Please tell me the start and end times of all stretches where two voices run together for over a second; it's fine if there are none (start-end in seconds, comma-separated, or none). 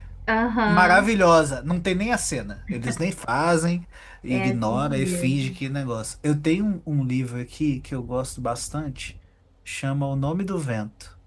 4.3-5.6